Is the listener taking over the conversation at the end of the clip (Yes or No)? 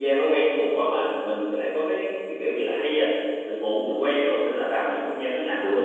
No